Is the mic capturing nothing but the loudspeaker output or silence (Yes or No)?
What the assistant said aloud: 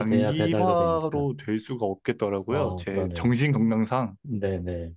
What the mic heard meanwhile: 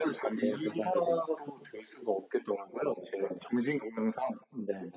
Yes